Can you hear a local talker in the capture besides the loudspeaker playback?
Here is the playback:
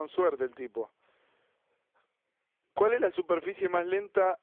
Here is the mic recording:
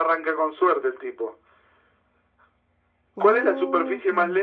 Yes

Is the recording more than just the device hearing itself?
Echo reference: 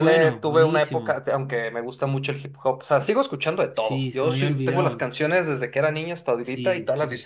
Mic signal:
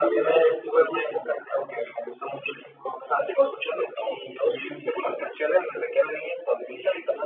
No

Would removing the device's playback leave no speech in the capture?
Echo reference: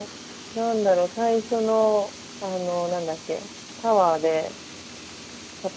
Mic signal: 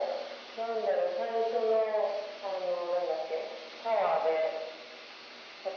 Yes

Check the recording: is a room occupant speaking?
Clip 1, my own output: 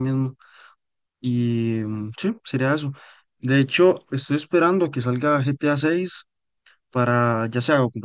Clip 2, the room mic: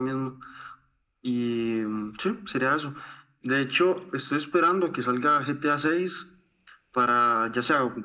No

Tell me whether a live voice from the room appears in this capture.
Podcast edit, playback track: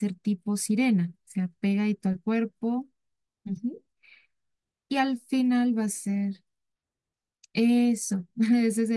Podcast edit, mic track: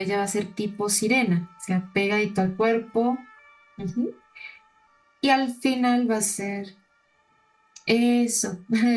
No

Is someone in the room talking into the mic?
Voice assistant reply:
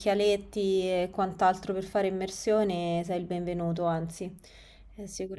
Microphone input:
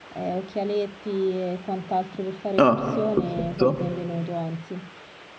Yes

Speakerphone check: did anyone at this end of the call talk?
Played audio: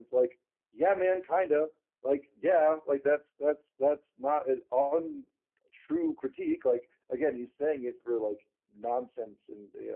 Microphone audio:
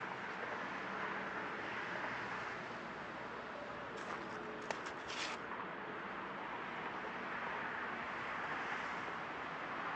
No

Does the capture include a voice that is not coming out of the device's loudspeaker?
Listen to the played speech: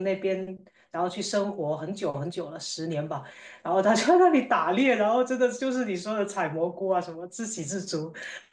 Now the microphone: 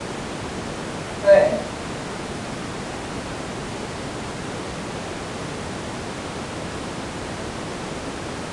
Yes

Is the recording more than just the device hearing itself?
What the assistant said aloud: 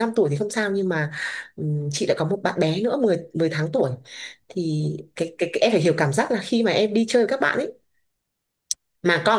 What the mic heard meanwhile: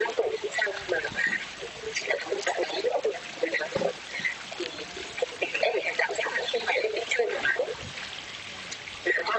No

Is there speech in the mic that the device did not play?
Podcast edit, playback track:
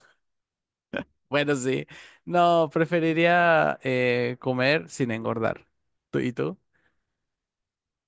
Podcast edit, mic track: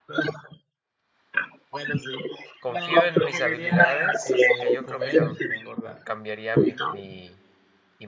Yes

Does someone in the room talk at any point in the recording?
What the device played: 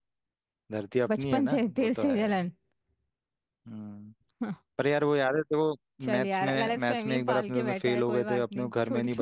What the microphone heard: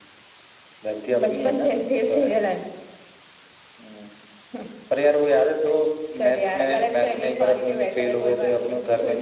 Yes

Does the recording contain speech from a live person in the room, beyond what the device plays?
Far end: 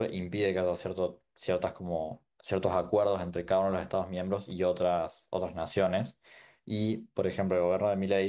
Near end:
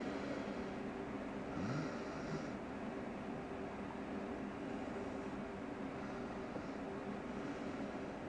No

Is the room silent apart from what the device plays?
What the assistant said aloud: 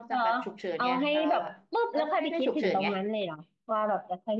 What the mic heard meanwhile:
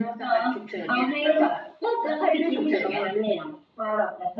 Yes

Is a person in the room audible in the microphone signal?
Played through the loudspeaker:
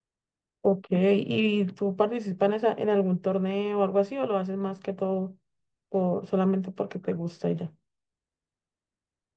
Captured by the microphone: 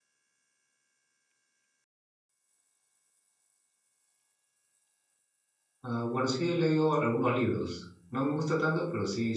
Yes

